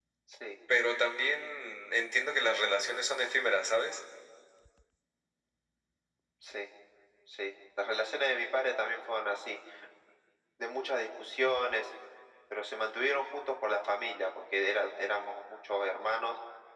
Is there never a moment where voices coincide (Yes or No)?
Yes